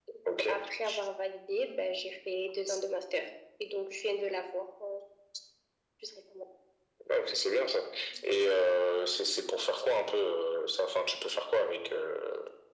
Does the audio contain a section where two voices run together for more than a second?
No

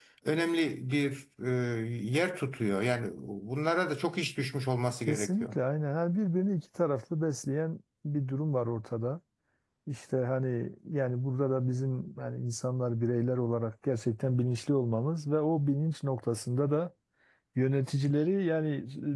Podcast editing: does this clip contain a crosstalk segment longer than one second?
No

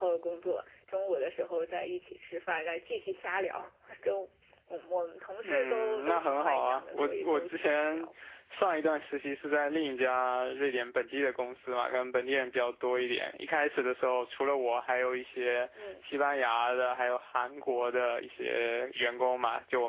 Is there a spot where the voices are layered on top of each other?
Yes, from 5.4 s

